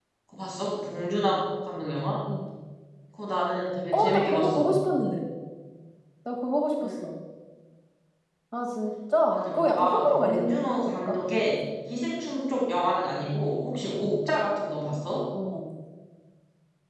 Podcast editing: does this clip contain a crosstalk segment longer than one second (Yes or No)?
Yes